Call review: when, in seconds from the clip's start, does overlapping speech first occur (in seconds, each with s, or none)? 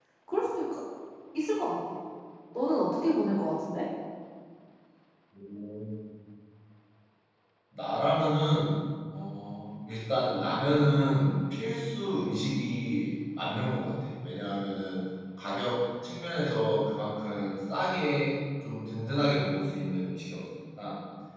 none